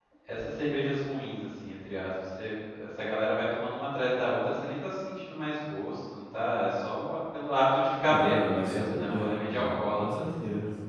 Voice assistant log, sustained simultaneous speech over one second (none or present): present